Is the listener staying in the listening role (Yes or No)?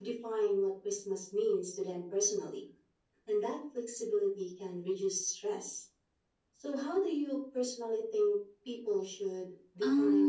No